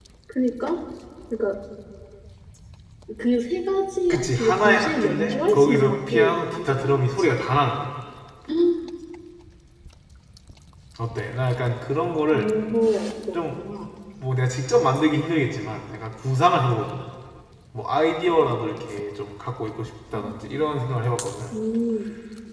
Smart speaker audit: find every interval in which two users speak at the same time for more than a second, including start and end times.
4.1-7.4

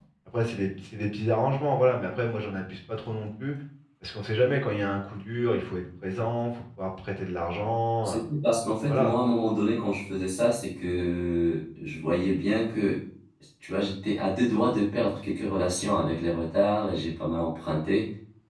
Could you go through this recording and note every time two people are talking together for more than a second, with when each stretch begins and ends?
none

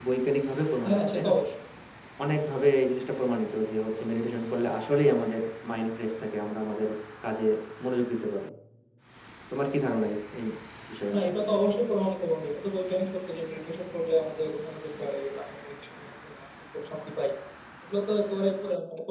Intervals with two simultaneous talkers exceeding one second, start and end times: none

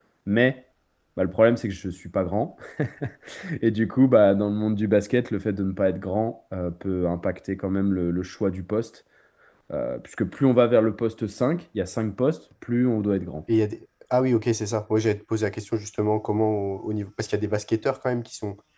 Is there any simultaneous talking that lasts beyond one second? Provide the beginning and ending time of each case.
none

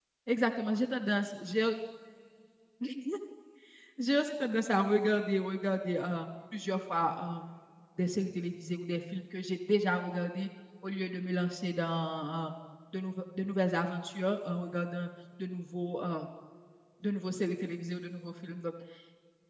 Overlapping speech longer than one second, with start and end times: none

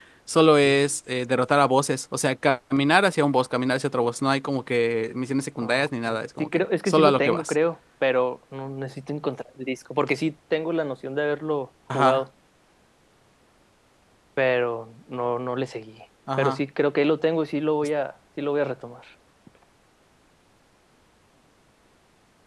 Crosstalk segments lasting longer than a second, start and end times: 5.6-7.5

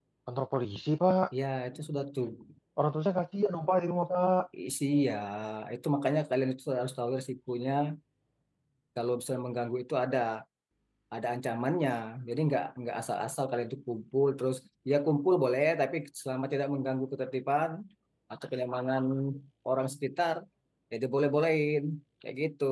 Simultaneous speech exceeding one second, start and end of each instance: none

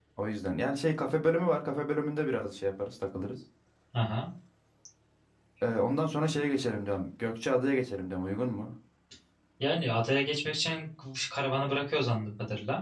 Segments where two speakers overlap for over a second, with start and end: none

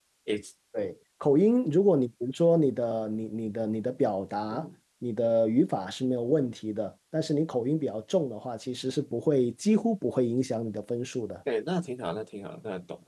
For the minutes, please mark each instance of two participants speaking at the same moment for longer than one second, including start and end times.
none

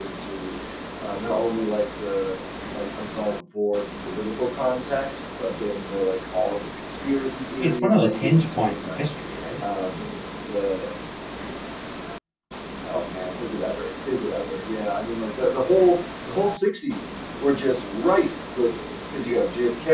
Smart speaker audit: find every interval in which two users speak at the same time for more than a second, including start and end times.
7.6-9.0

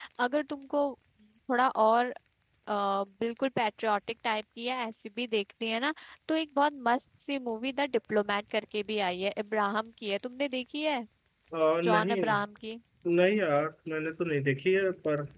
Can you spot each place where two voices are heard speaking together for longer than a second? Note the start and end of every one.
none

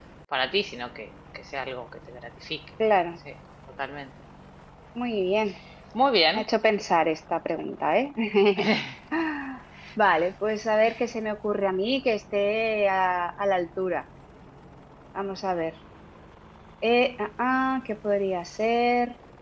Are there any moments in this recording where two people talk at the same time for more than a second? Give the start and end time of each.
none

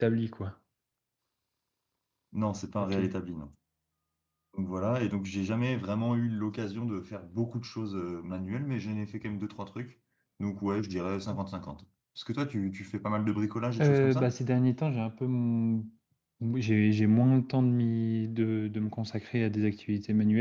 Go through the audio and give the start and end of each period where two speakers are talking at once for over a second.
none

